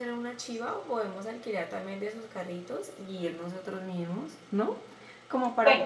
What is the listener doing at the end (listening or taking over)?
taking over